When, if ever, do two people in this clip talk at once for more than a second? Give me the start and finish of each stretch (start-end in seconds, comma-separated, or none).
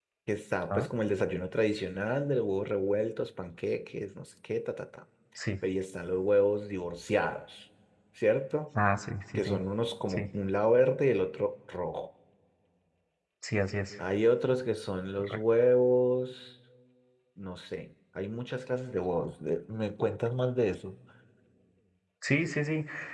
none